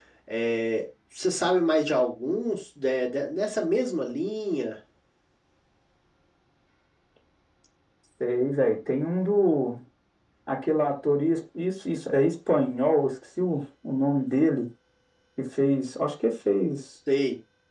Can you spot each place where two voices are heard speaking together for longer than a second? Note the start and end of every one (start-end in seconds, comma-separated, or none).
none